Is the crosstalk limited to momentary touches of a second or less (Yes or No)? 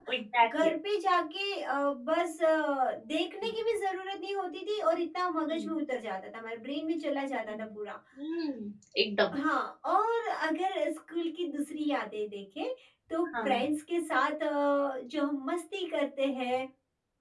Yes